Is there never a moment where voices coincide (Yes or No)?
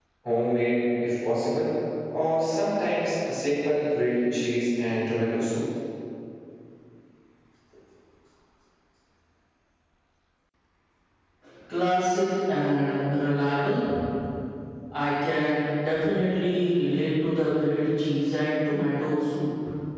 Yes